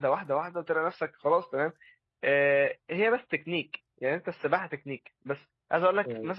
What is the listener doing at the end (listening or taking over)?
listening